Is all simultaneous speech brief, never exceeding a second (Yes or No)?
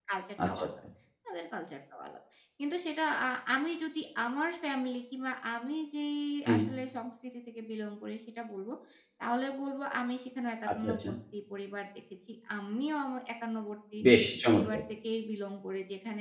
Yes